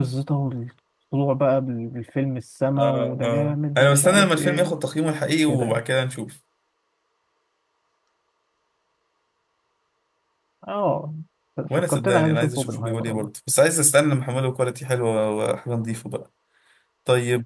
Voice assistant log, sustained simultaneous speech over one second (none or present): present